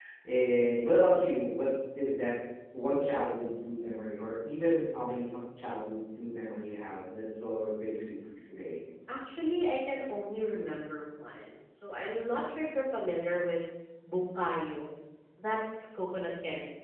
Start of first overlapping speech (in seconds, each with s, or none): none